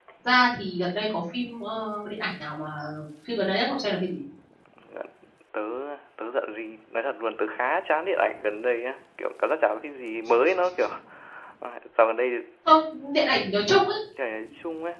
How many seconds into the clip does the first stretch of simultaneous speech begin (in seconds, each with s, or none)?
none